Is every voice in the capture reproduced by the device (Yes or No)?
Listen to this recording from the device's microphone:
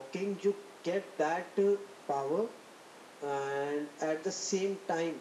Yes